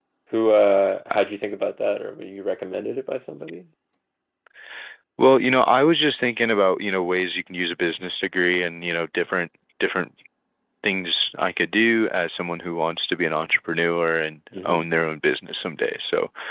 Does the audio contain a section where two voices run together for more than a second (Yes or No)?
No